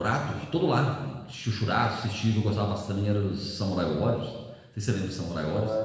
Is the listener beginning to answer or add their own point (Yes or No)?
Yes